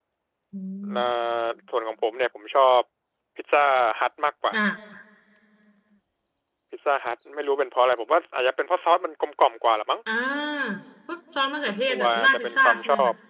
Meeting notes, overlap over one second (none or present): present